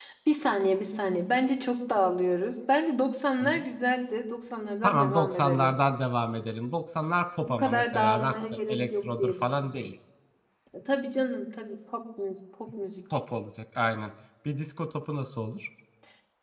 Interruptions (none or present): present